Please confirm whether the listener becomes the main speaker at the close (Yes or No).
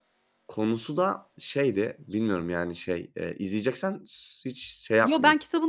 Yes